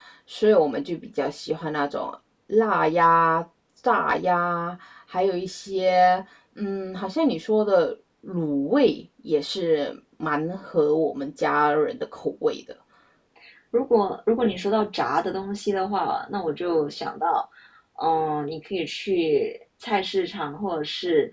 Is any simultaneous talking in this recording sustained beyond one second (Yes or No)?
No